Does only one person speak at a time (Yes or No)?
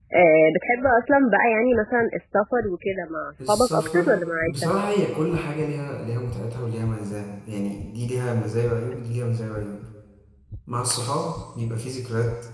No